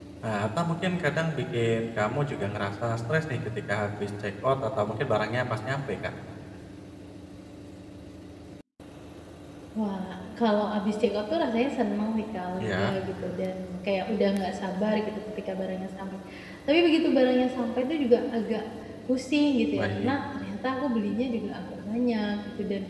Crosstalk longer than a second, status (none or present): none